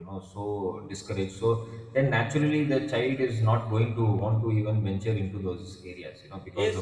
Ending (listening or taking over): taking over